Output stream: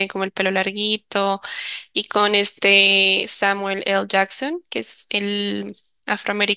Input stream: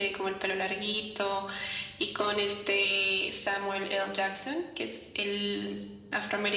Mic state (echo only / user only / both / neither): echo only